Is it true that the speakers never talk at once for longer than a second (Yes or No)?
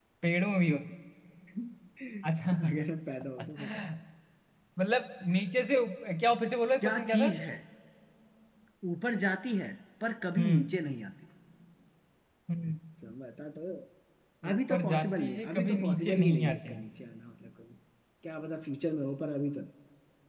No